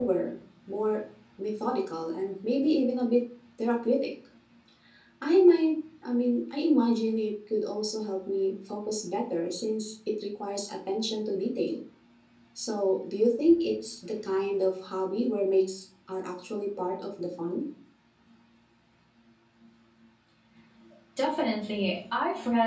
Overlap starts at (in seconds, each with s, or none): none